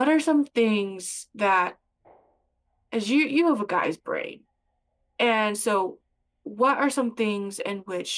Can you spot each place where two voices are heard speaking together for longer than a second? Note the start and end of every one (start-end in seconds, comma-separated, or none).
none